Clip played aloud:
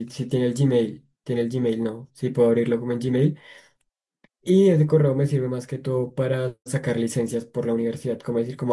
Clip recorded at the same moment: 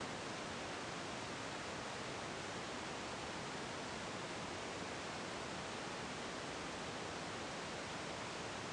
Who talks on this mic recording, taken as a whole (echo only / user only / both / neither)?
neither